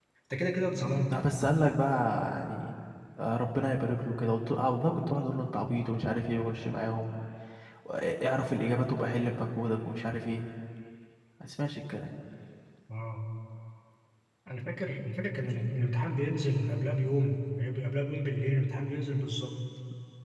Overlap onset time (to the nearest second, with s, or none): none